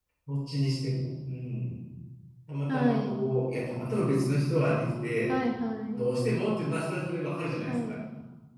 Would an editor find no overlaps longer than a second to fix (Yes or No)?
Yes